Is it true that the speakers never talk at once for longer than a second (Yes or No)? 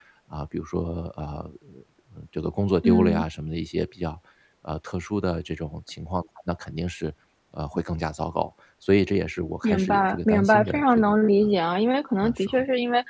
No